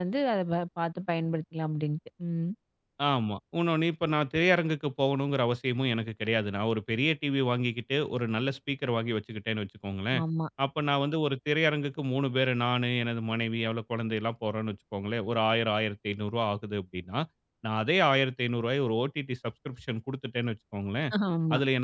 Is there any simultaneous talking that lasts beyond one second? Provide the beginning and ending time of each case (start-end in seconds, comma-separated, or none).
none